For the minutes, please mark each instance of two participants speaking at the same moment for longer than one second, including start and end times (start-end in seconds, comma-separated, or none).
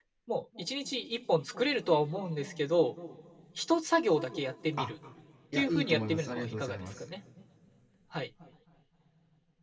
5.5-6.9